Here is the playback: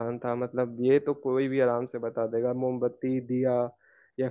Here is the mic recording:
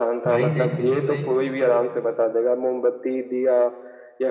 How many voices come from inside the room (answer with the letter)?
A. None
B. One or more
B